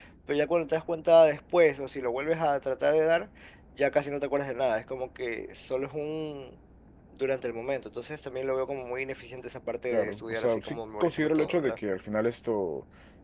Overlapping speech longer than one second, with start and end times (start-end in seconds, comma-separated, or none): 9.9-11.8